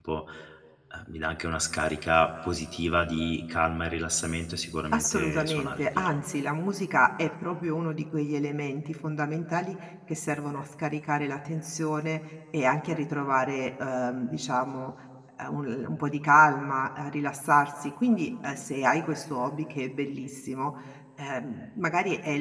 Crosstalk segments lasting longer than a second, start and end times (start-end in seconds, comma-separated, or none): 4.9-6.2